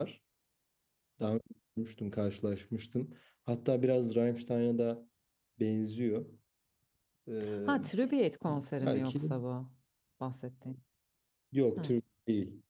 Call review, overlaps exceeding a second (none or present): none